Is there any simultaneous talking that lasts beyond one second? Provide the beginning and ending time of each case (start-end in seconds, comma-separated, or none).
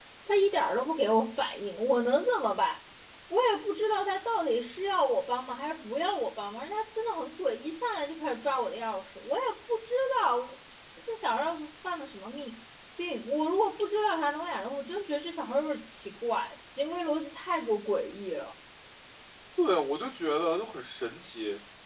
none